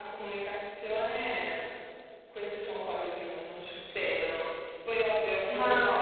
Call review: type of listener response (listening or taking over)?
listening